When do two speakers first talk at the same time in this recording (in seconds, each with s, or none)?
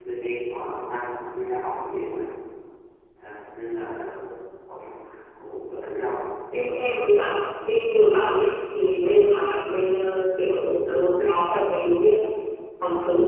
none